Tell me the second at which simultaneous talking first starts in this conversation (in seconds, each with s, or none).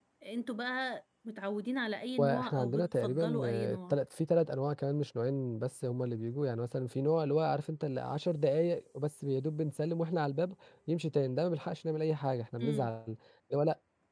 2.2 s